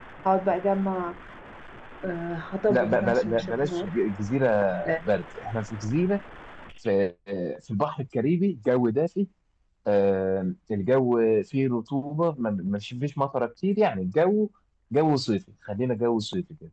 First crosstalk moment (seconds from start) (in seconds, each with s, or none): 2.7 s